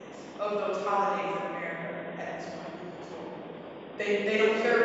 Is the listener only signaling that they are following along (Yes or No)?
Yes